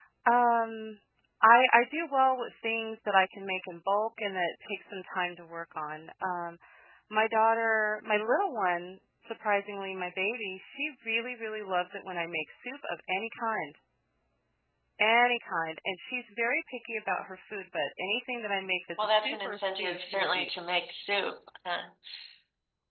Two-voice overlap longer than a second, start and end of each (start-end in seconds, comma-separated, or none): 19.0-20.5